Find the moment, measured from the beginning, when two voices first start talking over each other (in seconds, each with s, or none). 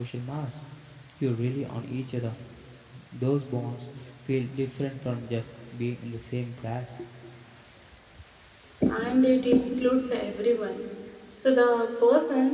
none